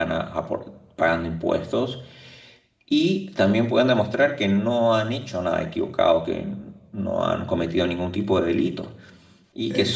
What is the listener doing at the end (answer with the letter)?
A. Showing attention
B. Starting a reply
A